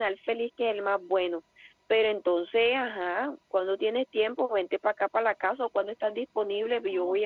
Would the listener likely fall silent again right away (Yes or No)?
No